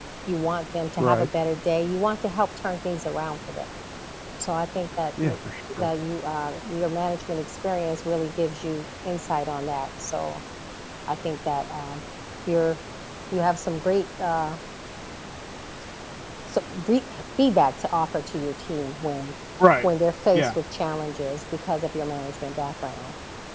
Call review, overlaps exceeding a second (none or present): none